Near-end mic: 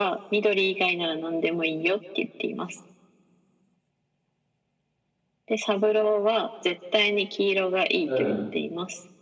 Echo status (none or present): present